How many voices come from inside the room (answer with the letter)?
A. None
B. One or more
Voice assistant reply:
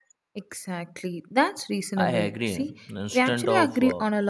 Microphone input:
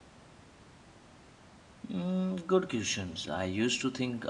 B